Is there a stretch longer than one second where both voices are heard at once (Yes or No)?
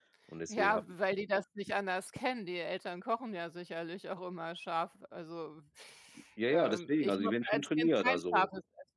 Yes